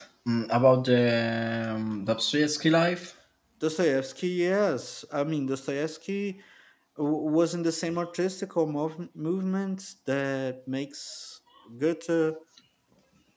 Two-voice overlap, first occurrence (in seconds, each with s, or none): none